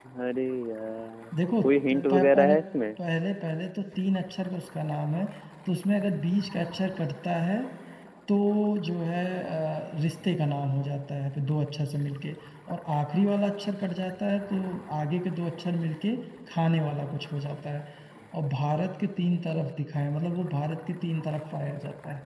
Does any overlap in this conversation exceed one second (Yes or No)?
Yes